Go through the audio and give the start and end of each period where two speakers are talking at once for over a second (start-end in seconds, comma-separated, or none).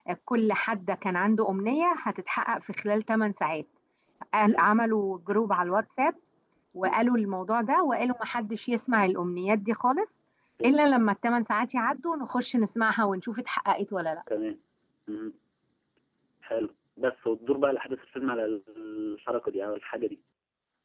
none